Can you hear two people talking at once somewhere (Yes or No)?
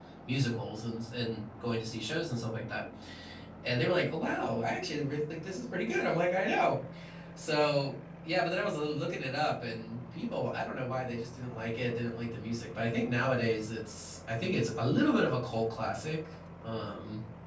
No